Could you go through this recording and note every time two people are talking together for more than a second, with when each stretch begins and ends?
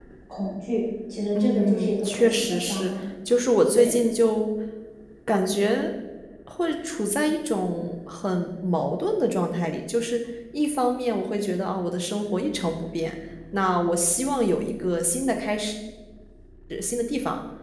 1.4-2.9

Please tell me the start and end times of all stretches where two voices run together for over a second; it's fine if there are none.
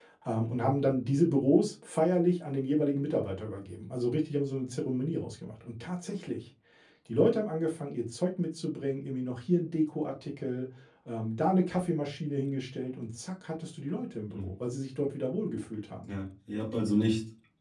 none

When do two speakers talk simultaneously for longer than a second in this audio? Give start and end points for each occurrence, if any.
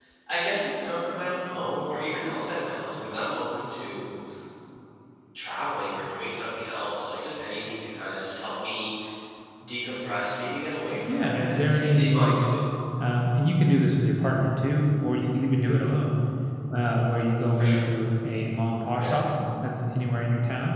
11.1-12.4

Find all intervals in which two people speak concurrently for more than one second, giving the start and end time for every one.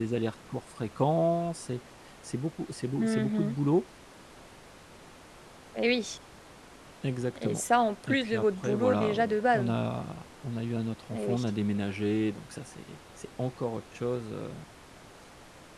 8.1-9.7

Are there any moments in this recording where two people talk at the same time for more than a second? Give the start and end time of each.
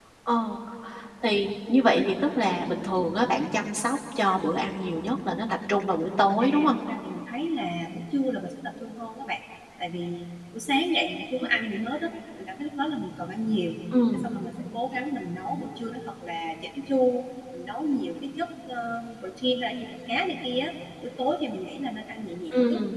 none

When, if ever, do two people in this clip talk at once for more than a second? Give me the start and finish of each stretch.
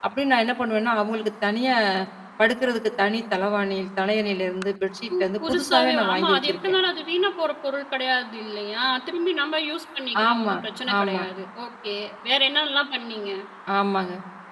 5.2-6.6

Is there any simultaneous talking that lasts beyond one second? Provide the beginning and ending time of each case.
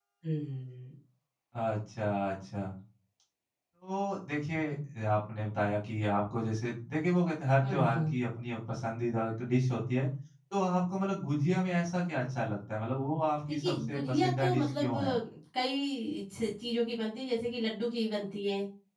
13.6-14.9

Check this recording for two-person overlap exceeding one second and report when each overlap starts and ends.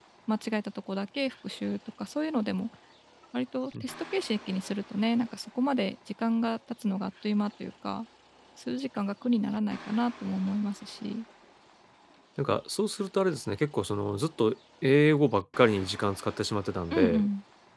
none

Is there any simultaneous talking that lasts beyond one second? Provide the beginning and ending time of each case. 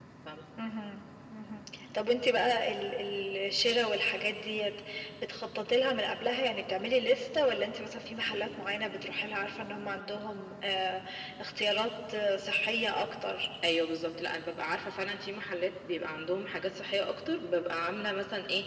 none

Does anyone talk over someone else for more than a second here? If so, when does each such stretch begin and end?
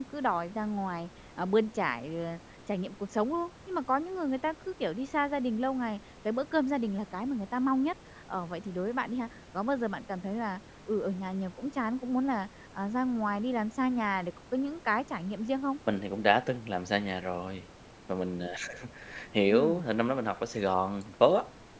none

